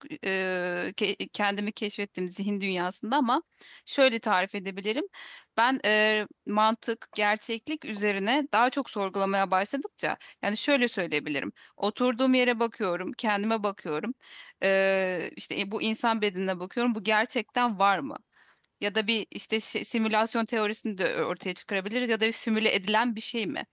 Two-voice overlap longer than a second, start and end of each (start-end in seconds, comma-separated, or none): none